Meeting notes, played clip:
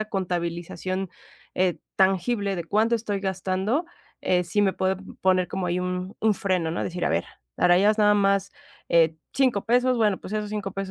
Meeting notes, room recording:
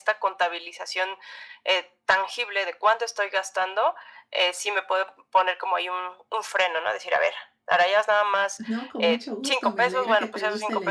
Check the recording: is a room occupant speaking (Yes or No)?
Yes